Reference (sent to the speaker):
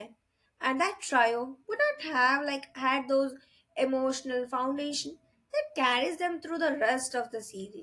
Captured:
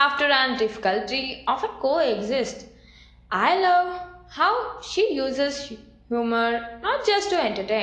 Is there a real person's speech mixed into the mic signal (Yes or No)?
Yes